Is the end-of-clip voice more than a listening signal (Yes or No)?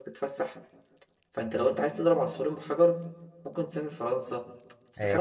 No